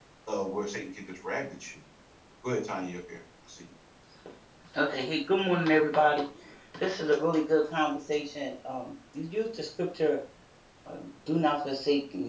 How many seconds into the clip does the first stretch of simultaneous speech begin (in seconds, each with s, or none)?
none